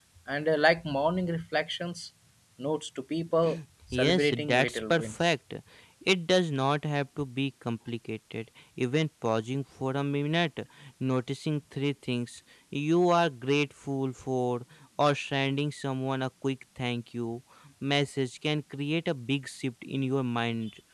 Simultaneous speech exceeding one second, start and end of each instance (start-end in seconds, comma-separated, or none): 3.9-5.3